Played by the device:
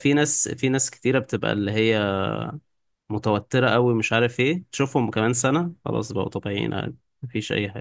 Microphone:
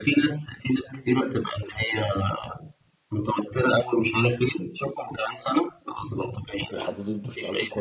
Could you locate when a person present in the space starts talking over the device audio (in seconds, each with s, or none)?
6.7 s